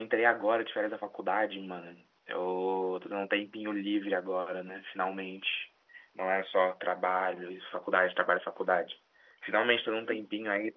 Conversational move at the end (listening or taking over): listening